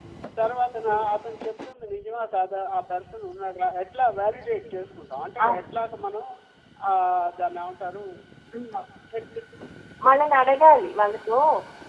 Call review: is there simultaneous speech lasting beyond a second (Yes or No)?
No